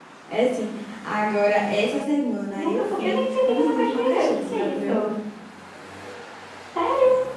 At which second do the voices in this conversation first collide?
3 s

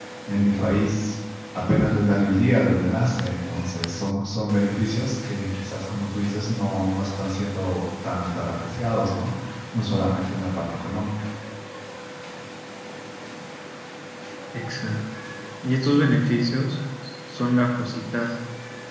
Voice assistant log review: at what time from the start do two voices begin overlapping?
none

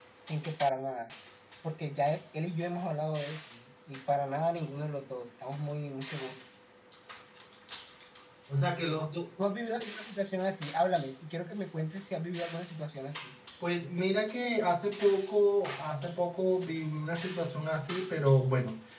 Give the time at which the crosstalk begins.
none

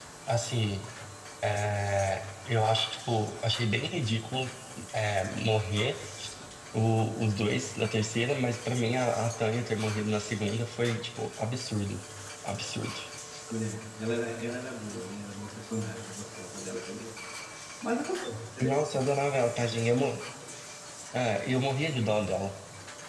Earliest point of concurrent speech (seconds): none

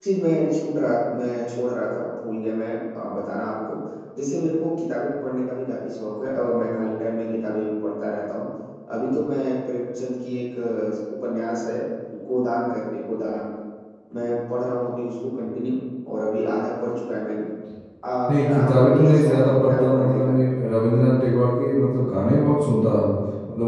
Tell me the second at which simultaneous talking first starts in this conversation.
18 s

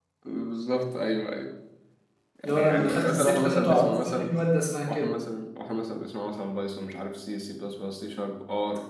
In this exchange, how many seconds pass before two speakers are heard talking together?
2 s

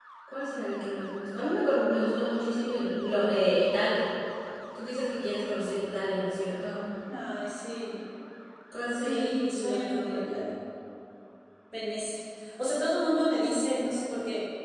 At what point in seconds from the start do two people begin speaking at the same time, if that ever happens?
9 s

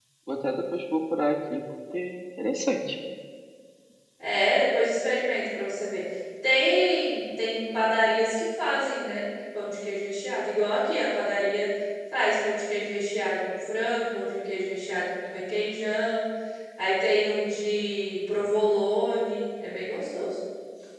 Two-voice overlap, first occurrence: none

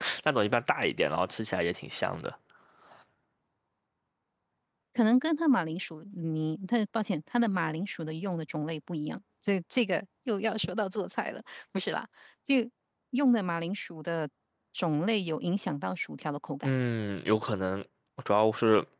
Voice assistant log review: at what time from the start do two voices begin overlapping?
none

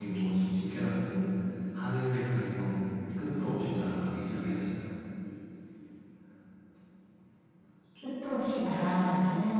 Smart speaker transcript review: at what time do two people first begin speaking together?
none

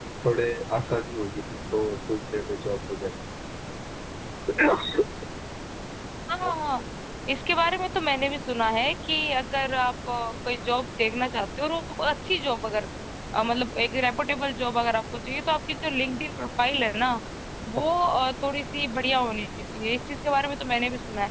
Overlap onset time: none

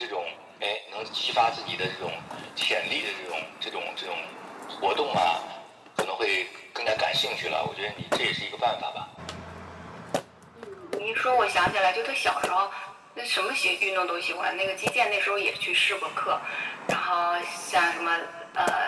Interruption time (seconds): none

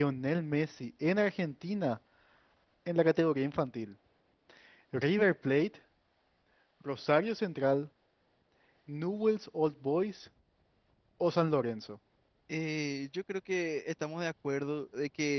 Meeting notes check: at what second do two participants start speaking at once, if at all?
none

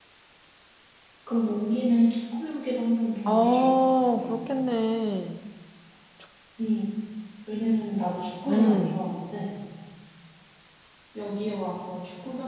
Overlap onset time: 3 s

